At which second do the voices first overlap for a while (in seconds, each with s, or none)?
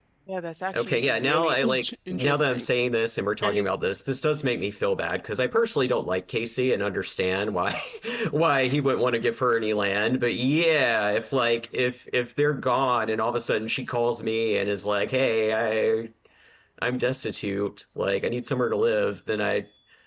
0.8 s